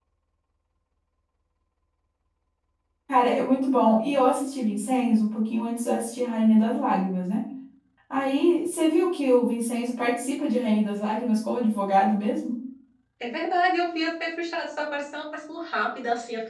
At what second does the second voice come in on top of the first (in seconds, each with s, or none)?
none